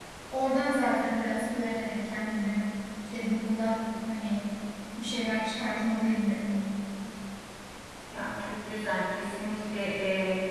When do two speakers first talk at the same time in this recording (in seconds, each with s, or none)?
none